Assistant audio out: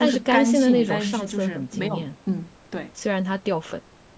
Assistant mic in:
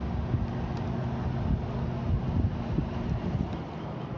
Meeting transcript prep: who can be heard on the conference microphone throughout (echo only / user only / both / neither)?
neither